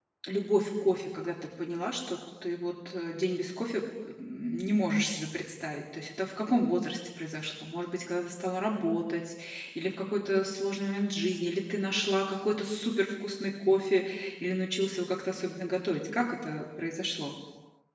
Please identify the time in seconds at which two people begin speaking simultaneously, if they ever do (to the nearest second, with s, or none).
none